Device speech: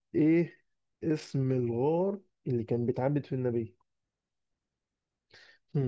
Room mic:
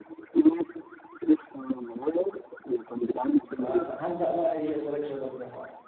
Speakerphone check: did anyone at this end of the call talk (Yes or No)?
Yes